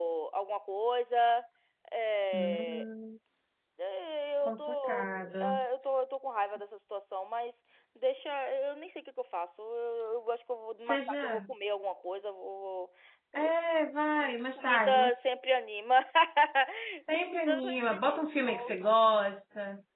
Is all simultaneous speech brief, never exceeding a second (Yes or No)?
No